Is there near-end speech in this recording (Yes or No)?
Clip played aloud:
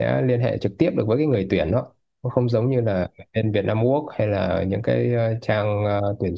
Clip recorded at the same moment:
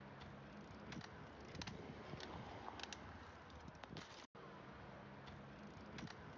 No